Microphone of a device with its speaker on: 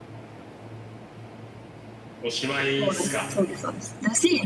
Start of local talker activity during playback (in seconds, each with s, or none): 2.2 s